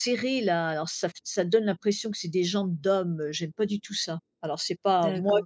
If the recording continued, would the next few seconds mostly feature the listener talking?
Yes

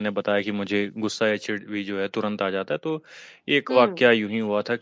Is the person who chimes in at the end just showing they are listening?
Yes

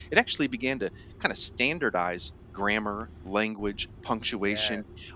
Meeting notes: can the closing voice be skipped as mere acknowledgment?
Yes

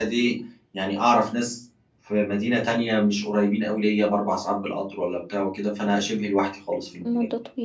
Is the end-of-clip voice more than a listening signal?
Yes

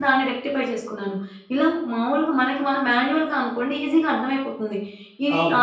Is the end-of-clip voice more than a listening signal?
No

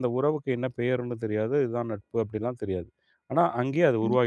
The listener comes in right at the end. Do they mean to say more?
Yes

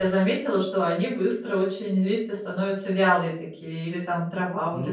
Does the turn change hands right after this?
Yes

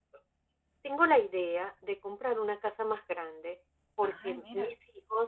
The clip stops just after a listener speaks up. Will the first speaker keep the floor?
Yes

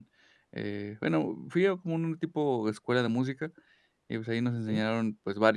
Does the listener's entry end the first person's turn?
No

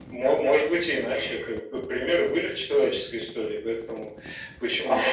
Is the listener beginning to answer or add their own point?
No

